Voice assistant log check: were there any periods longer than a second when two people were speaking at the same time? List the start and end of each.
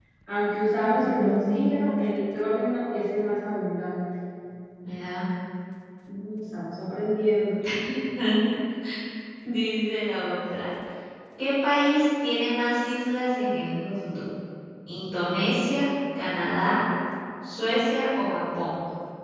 1.0-2.4

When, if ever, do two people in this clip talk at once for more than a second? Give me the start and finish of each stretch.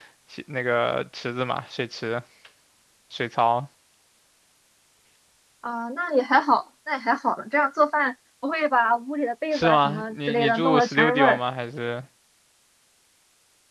9.5-11.4

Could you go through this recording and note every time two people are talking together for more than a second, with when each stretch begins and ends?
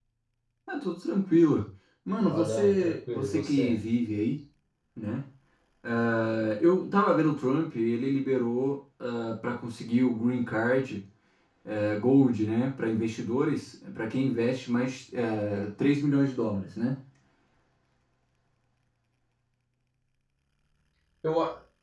2.2-3.8

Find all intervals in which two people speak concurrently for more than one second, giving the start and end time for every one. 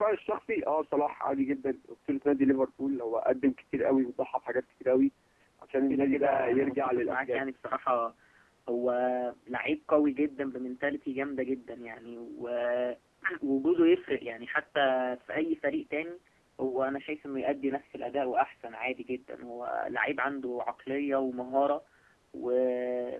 5.9-7.4

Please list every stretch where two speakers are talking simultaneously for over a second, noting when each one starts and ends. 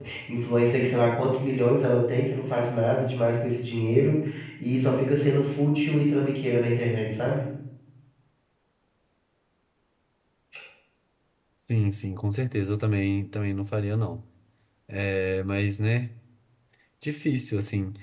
none

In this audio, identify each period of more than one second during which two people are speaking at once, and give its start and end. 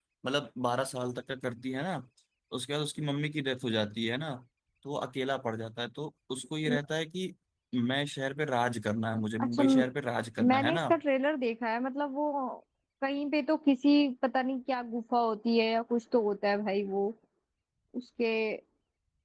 none

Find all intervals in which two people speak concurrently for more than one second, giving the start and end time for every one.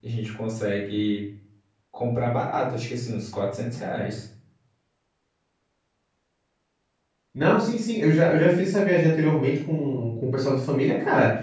none

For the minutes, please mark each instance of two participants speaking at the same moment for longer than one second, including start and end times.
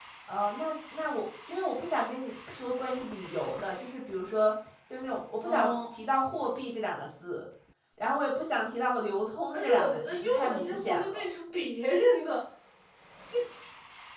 9.5-11.2

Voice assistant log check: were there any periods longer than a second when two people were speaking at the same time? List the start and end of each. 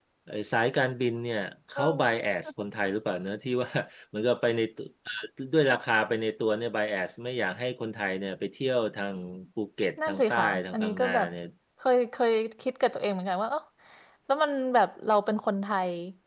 10.1-11.3

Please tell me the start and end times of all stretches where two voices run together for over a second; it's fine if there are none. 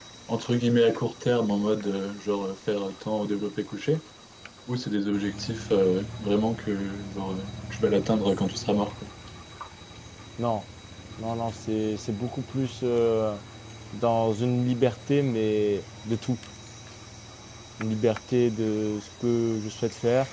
none

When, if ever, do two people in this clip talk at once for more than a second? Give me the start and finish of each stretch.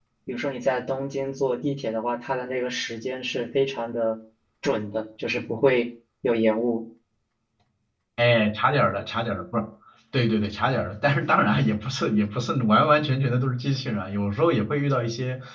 none

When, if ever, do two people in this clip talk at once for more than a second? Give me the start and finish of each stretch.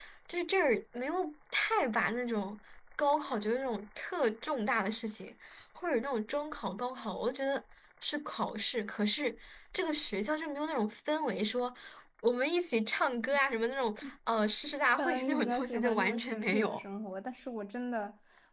14.9-16.8

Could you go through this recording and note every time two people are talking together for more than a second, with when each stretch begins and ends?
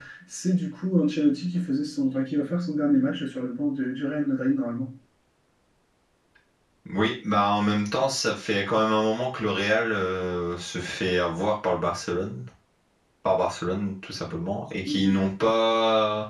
none

